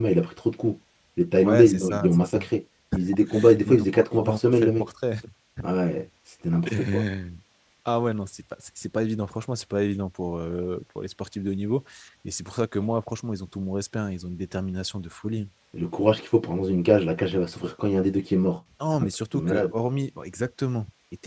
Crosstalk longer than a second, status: present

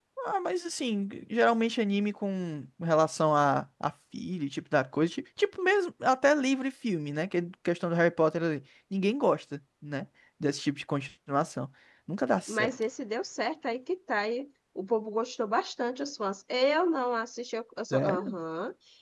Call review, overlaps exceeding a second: none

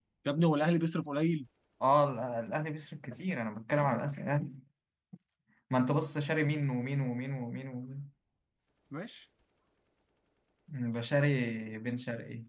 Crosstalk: none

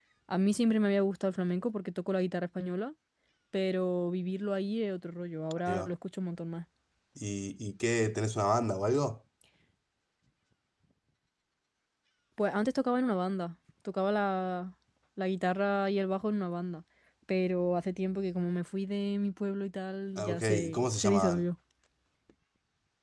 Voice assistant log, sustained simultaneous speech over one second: present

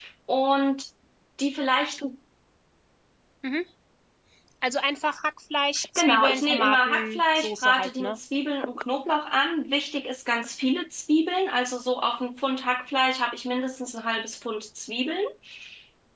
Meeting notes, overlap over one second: present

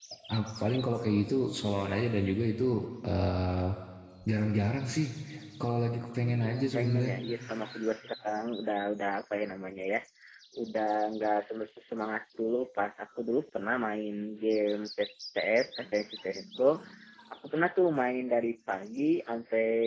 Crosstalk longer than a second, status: present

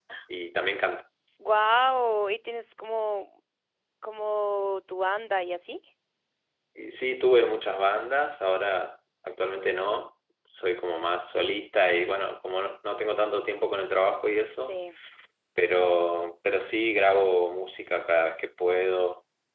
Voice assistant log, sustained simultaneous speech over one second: none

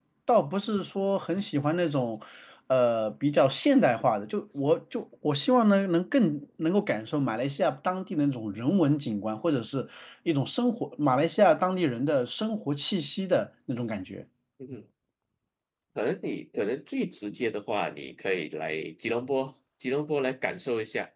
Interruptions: none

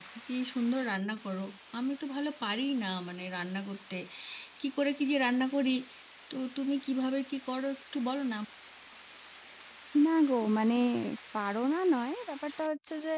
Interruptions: none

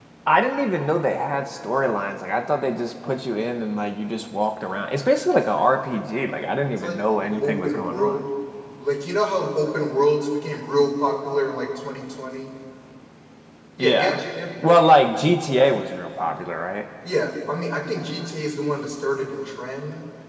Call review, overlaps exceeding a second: present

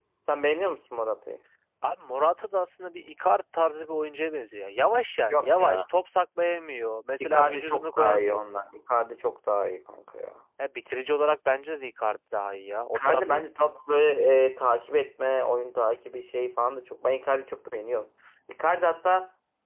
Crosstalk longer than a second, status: present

